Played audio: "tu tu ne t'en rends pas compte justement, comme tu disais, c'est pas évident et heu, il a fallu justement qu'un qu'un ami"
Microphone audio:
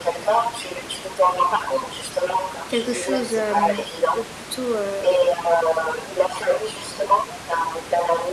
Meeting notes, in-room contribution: present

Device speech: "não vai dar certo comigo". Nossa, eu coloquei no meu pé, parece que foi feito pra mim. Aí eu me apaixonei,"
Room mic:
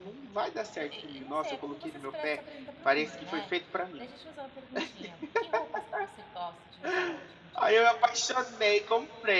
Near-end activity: present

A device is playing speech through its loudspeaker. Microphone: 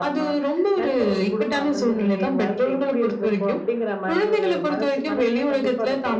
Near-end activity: none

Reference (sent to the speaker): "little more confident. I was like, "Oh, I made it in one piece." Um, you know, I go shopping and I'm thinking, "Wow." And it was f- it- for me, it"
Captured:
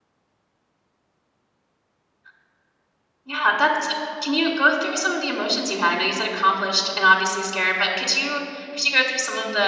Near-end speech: present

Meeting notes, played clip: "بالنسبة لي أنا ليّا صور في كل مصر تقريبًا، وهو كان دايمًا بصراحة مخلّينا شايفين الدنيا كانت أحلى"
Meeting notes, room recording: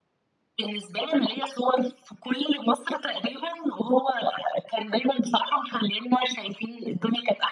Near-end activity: none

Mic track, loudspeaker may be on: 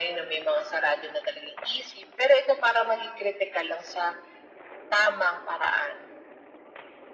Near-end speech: none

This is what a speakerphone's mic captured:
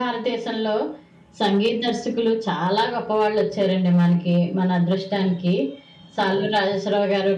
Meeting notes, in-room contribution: none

